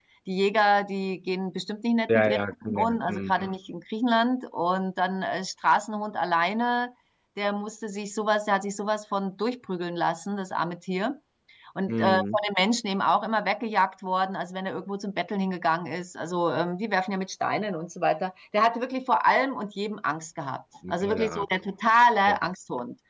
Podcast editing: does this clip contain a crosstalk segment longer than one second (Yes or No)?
Yes